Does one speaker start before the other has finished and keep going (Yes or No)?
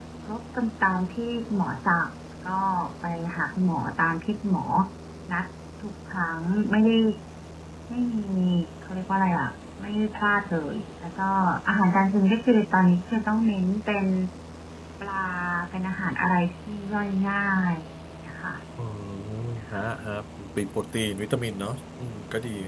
No